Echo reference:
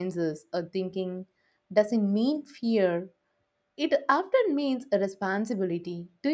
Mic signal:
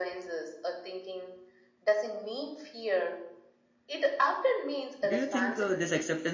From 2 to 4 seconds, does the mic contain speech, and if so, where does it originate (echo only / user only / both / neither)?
echo only